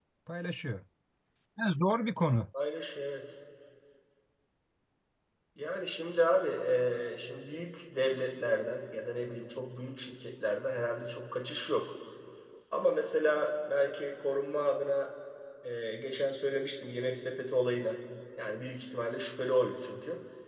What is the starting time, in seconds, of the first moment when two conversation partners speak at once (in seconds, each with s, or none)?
none